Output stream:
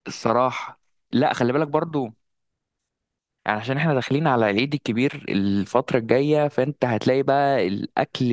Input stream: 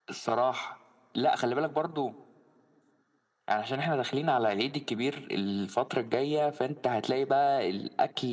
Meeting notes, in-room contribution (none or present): none